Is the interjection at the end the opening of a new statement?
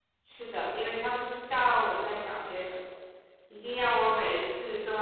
No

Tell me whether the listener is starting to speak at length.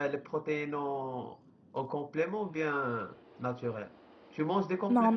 Yes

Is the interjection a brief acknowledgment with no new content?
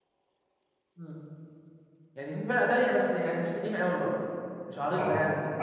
No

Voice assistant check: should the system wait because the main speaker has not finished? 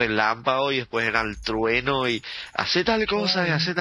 Yes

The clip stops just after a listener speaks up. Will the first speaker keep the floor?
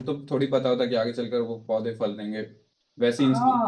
No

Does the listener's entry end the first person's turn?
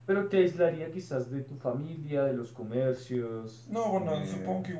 Yes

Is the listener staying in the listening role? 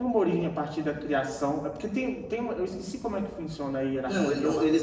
No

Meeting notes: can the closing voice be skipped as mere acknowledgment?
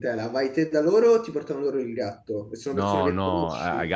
No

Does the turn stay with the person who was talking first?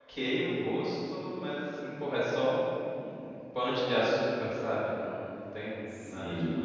No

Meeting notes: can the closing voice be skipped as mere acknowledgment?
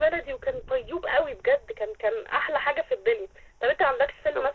Yes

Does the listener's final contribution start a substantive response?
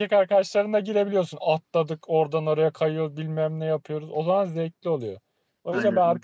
No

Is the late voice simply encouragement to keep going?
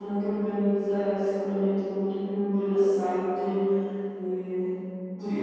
No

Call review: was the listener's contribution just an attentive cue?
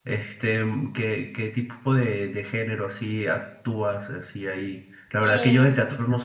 Yes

